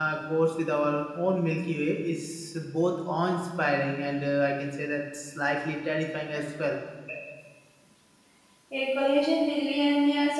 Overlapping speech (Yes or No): No